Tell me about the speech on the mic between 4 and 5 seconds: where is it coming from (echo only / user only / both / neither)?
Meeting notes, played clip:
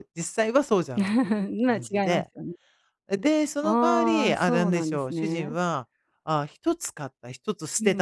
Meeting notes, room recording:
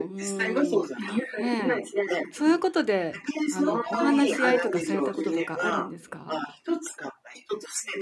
both